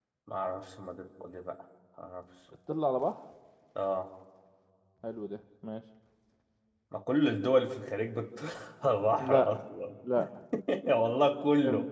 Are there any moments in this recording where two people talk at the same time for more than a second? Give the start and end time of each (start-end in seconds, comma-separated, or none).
none